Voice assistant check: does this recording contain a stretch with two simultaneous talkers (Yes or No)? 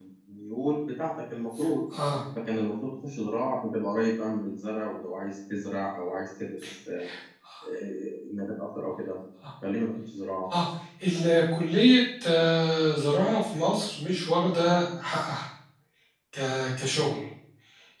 No